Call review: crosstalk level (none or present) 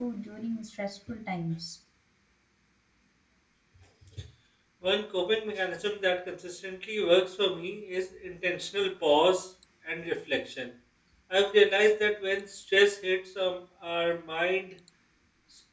none